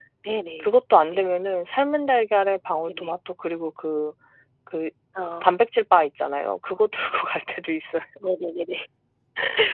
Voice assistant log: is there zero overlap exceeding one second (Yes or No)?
Yes